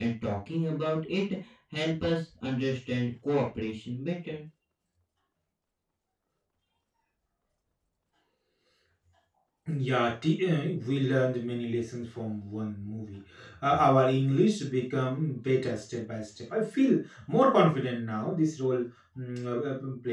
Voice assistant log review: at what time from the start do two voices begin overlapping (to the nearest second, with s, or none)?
none